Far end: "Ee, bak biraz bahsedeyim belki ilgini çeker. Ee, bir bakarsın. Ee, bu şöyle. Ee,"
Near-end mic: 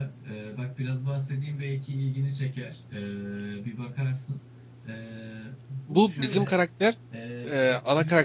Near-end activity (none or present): present